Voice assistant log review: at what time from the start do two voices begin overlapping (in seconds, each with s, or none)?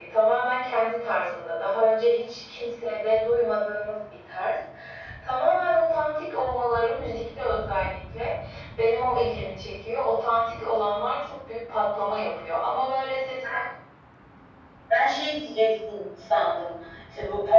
none